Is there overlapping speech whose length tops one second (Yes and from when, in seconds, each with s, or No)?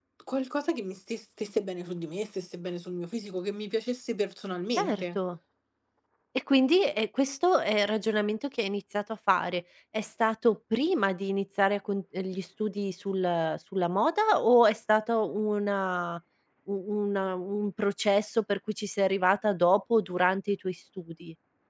No